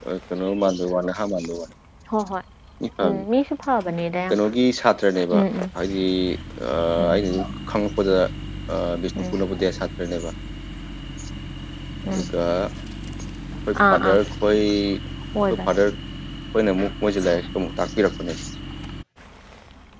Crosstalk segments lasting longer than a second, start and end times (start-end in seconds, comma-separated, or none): none